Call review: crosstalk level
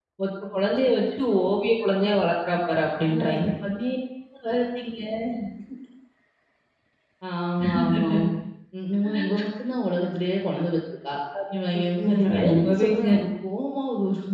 present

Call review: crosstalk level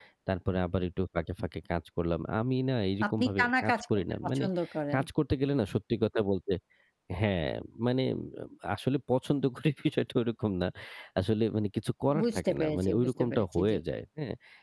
present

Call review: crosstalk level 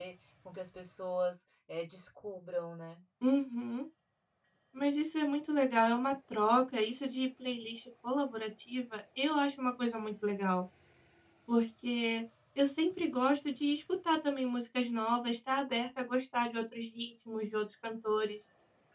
none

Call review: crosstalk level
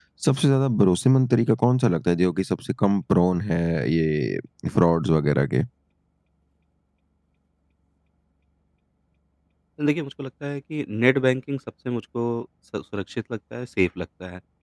none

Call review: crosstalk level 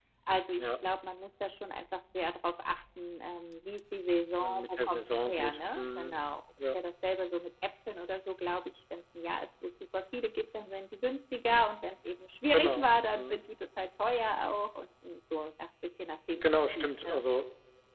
present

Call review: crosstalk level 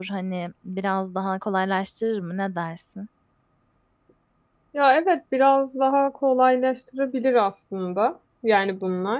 none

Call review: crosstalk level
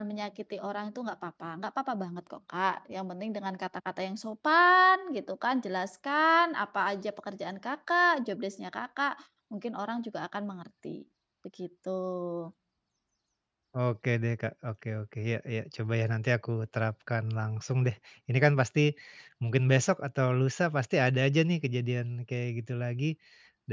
none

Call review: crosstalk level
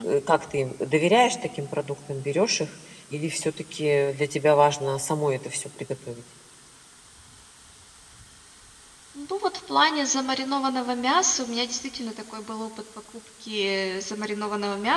none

